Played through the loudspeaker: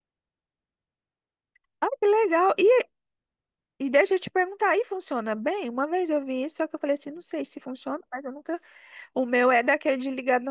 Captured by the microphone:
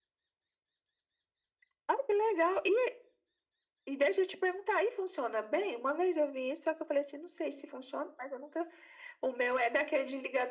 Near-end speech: none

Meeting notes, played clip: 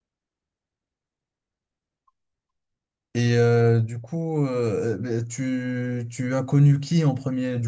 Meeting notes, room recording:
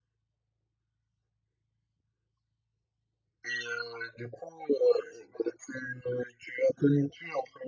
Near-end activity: none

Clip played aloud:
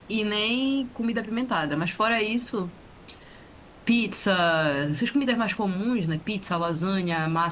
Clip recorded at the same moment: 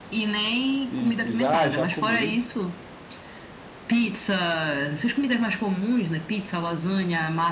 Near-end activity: present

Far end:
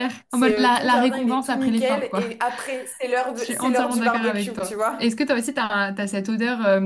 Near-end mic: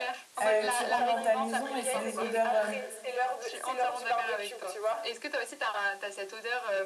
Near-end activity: present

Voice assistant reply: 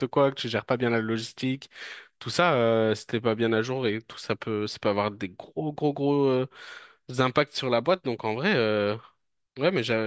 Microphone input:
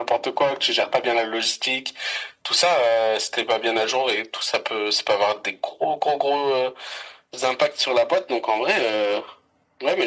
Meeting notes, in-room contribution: none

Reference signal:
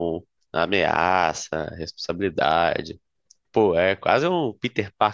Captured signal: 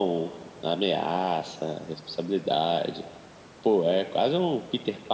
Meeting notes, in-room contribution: none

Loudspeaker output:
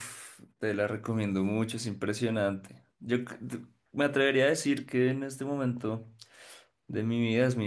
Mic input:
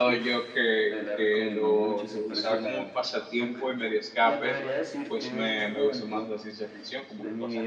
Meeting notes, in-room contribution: present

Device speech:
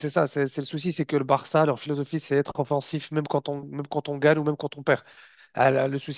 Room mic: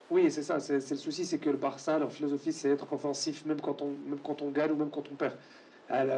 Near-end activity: none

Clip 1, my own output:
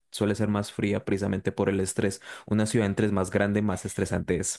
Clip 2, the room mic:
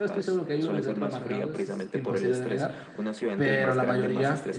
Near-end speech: present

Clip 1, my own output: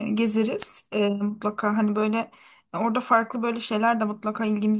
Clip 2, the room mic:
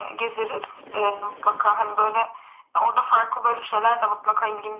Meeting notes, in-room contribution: none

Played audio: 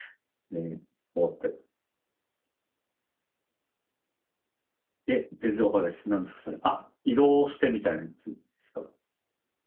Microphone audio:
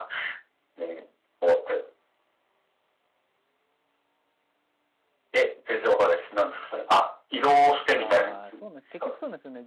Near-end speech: present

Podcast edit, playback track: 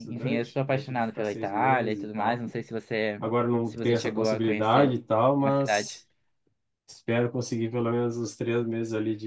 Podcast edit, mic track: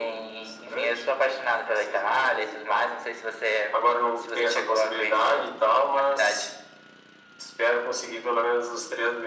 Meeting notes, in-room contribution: none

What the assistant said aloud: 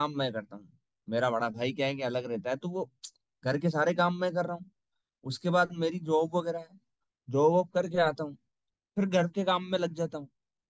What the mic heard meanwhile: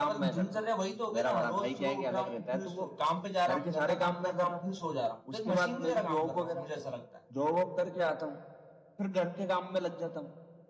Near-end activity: present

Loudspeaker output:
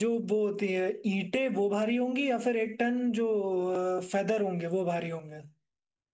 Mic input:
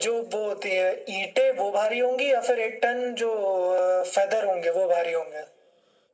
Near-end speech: none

